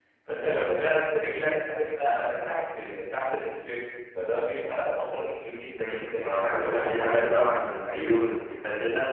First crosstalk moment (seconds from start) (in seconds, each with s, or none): 5.8 s